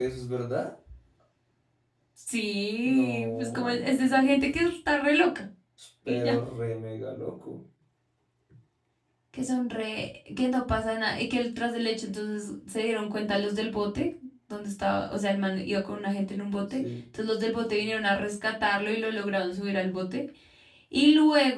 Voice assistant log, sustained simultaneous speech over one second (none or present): present